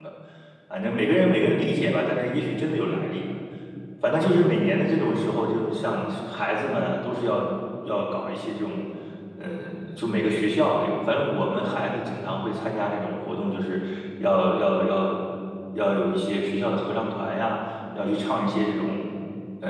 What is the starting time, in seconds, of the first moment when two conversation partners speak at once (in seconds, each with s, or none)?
none